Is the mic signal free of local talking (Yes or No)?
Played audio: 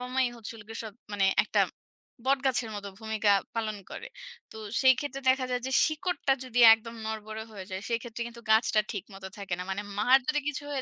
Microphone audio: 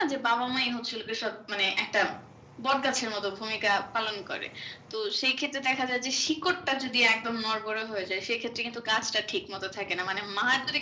Yes